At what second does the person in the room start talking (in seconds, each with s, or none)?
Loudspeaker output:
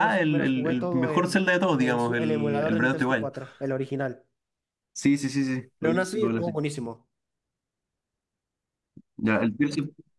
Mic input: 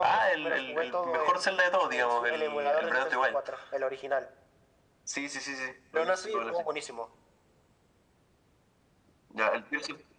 none